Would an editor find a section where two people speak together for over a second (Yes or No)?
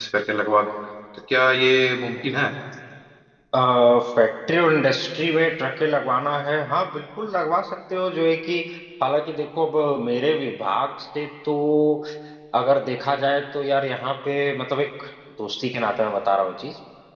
No